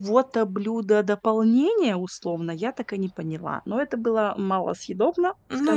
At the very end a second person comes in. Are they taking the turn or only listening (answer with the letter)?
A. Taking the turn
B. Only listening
A